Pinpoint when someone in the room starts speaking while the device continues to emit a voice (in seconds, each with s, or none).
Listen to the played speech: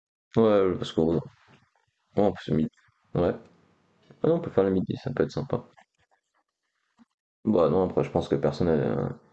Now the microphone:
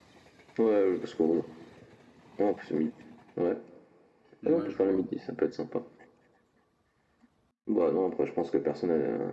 4.4 s